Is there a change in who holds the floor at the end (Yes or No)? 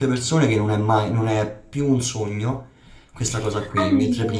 No